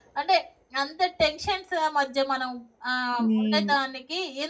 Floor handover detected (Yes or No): No